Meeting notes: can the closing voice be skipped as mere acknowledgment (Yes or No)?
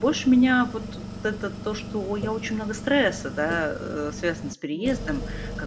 Yes